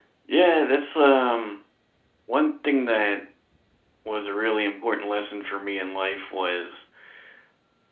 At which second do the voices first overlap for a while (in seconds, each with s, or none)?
none